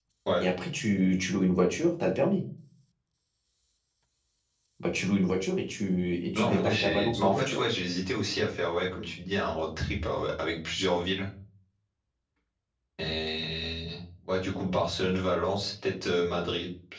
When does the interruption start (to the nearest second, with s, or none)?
6 s